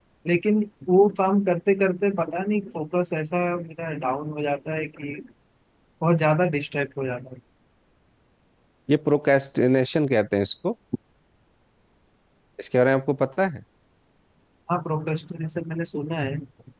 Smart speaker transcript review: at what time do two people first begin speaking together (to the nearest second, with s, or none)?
none